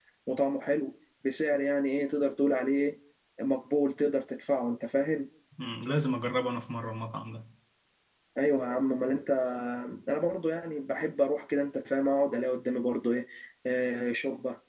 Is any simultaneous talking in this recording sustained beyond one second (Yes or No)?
No